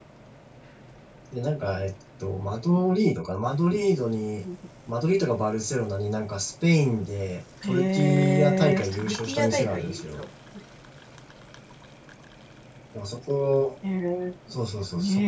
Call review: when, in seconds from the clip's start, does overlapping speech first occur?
8 s

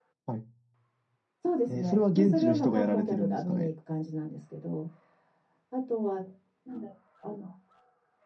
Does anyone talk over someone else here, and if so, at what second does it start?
2 s

